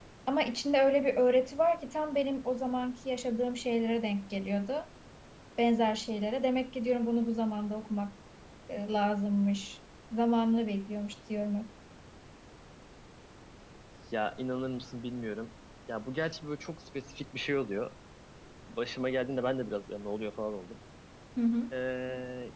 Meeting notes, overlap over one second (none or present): none